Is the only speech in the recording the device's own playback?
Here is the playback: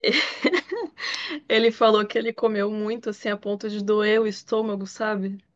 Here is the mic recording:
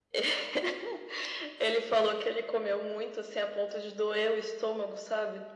Yes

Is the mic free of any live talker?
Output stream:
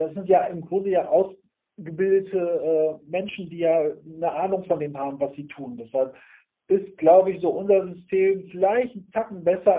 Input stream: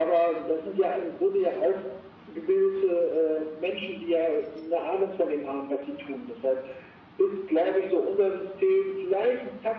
Yes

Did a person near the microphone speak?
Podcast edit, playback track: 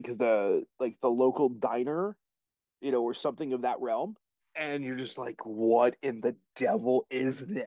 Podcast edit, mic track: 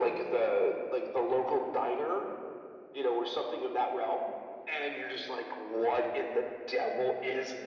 No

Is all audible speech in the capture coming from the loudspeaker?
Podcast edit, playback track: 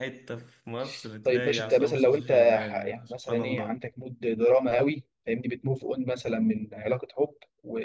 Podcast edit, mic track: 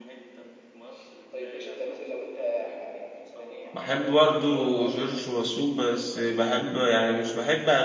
No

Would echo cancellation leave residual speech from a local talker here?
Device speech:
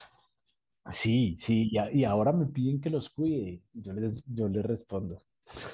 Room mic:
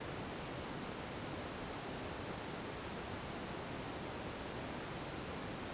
No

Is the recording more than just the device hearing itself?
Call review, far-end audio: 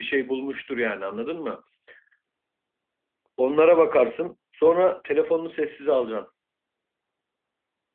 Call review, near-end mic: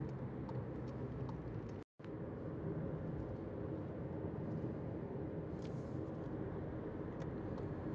No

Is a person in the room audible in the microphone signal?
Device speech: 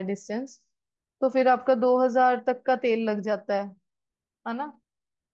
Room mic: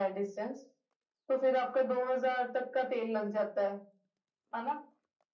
No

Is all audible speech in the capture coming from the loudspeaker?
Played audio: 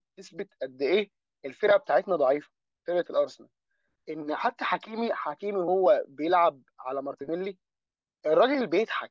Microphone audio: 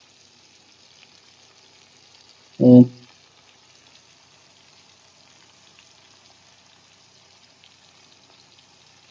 No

